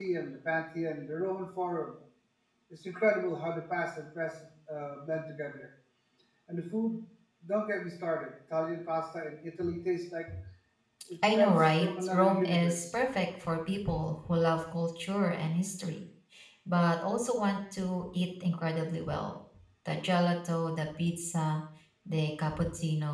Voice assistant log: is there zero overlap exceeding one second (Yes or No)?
No